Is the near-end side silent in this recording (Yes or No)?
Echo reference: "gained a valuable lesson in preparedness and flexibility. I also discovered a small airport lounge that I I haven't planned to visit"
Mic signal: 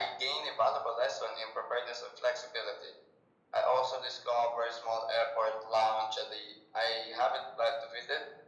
Yes